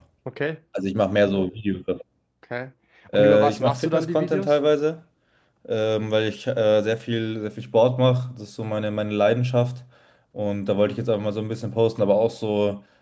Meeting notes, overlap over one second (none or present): present